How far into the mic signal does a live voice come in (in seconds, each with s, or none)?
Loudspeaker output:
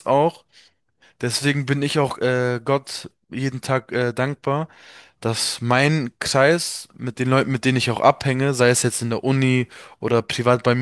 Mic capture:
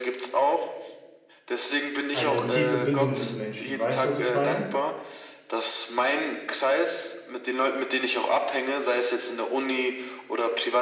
2.1 s